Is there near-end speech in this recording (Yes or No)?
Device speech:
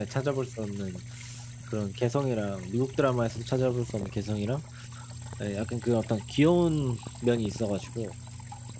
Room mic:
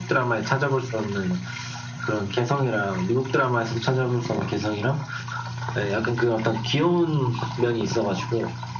No